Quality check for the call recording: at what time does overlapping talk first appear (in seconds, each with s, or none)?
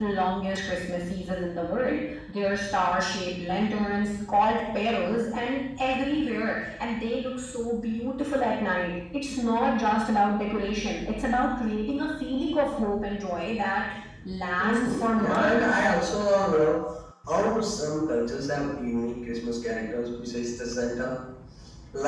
14.6 s